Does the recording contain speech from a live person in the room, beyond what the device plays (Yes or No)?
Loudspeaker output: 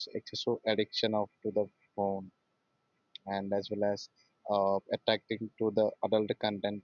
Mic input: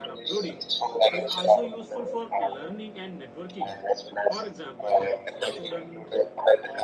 Yes